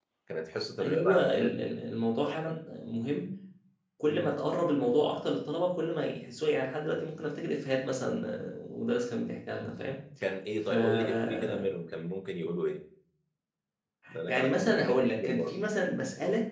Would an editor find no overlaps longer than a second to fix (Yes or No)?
No